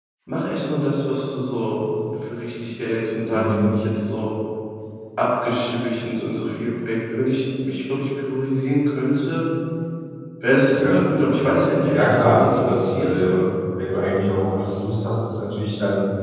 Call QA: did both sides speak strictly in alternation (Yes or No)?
No